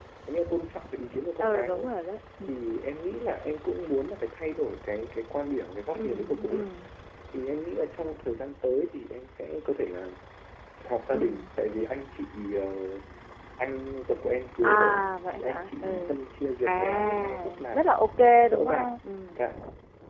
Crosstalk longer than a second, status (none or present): present